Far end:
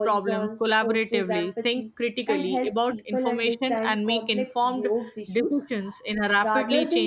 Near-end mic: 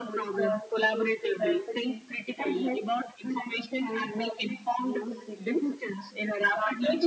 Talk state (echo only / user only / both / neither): echo only